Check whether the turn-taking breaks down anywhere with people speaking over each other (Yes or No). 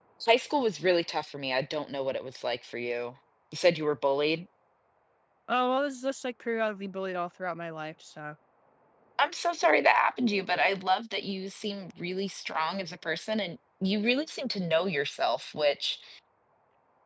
No